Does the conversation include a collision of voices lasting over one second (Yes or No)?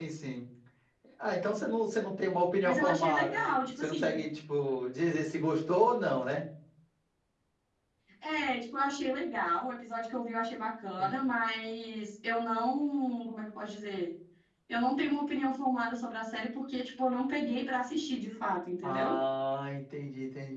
Yes